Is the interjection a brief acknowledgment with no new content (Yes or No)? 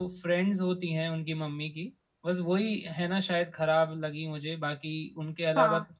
Yes